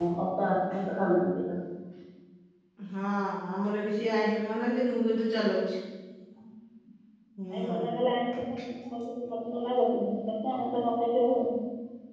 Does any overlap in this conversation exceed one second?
No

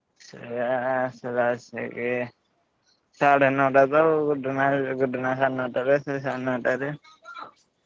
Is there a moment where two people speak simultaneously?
No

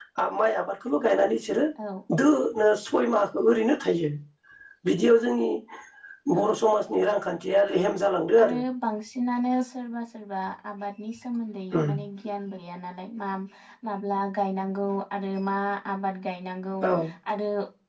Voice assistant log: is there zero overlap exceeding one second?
Yes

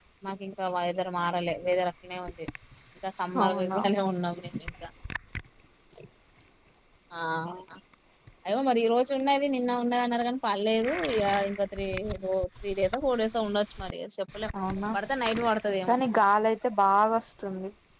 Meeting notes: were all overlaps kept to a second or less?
Yes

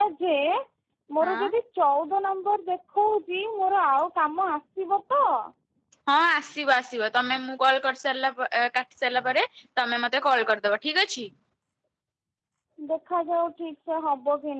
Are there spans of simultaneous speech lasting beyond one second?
No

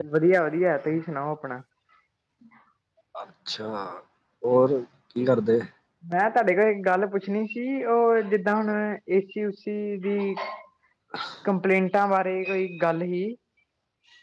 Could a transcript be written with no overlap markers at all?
Yes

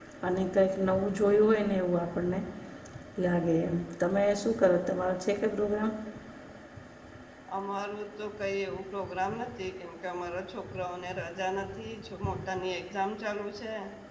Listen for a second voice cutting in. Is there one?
No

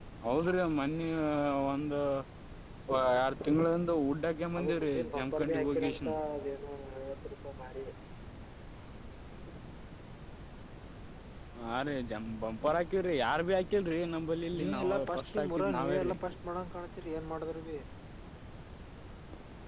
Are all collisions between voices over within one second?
No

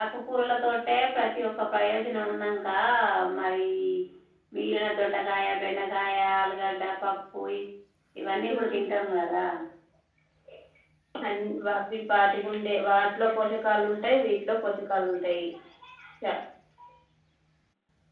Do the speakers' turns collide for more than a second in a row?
No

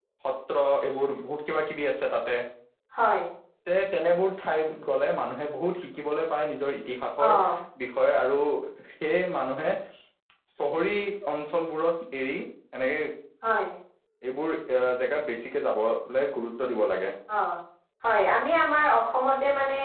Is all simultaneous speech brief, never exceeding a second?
Yes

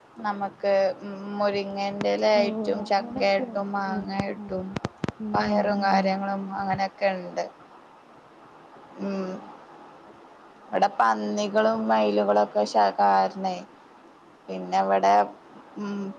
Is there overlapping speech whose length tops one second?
Yes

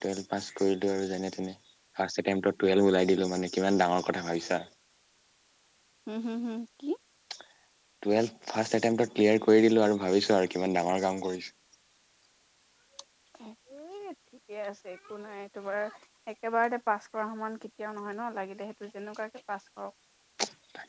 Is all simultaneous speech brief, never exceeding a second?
Yes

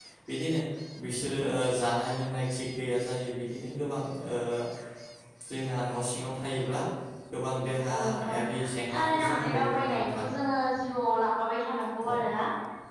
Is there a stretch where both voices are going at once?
Yes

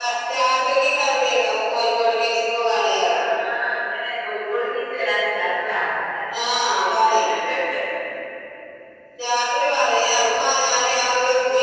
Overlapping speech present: No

